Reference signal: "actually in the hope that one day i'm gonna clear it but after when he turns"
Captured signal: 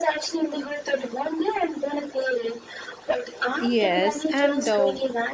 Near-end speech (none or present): present